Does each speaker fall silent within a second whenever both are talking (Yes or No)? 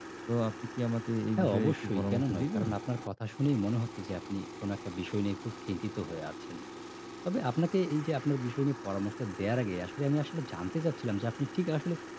No